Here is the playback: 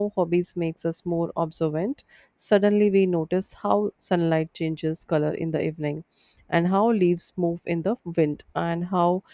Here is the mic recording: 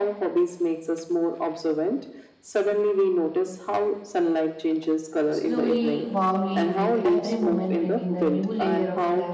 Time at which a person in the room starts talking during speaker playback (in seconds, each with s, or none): 5.3 s